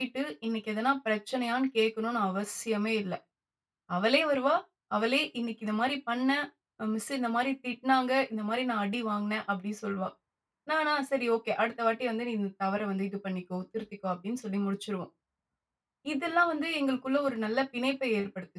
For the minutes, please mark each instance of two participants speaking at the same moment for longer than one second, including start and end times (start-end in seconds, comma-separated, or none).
none